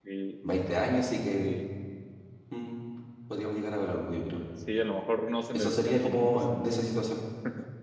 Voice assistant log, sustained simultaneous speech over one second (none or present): present